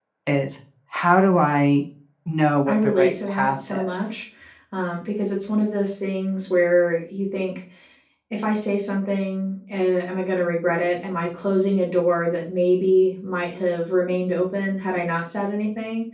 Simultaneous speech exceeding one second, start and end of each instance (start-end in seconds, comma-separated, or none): 2.7-4.0